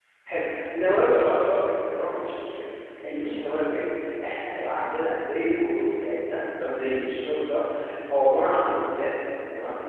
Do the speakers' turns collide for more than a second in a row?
No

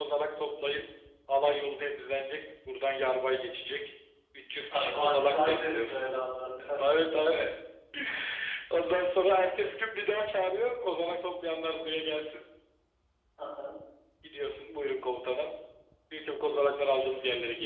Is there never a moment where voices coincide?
No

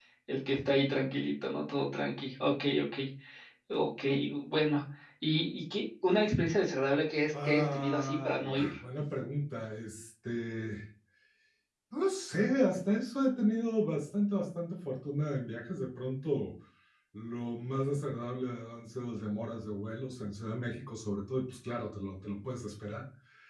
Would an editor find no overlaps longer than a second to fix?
No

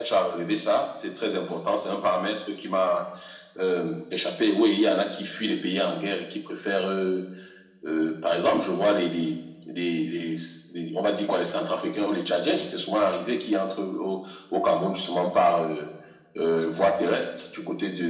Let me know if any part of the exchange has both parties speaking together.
No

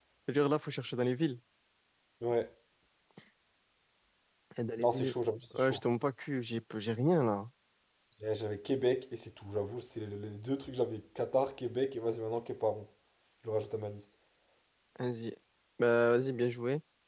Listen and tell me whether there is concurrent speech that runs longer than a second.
No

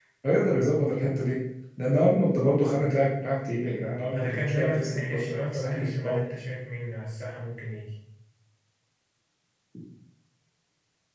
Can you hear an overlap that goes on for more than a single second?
Yes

